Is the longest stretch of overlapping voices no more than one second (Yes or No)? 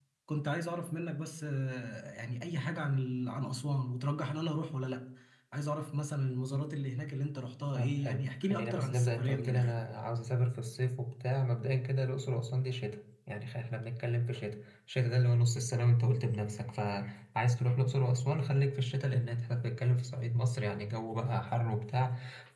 No